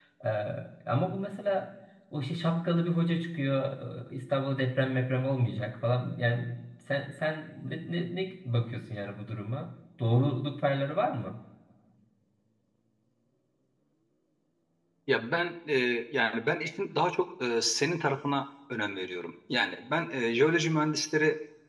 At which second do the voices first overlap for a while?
none

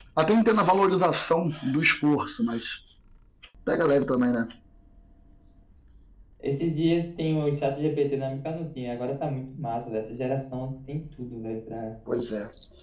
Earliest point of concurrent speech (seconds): none

